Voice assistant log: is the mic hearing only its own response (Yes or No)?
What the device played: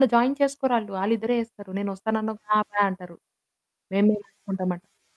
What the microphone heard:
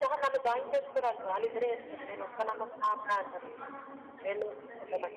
No